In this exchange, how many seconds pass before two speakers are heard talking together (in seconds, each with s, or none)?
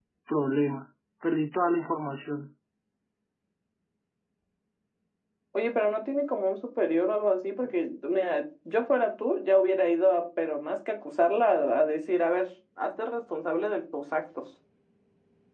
none